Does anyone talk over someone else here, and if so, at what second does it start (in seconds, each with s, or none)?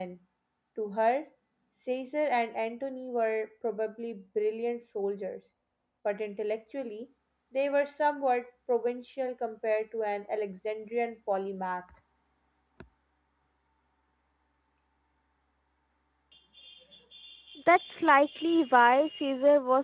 none